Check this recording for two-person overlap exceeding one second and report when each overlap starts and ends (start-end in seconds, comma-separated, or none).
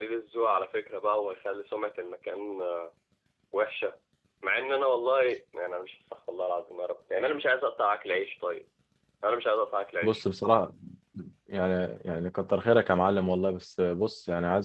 none